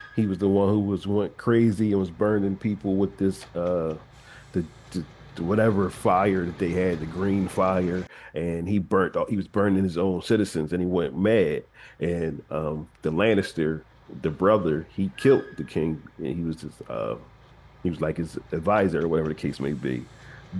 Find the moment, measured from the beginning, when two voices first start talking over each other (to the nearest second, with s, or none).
none